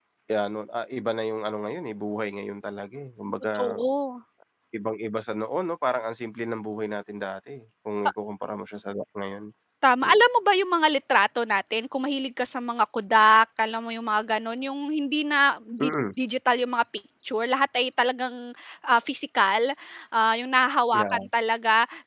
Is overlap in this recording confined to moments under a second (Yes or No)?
Yes